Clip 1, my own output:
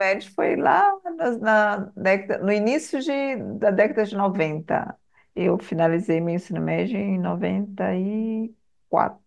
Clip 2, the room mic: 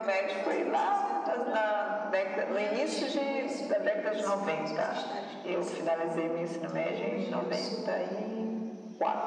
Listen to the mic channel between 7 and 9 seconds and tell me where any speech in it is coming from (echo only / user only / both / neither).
both